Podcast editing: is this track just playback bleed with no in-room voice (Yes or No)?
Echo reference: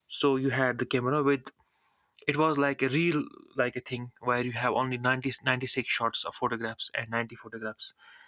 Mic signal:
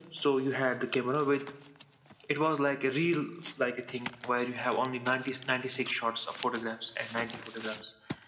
Yes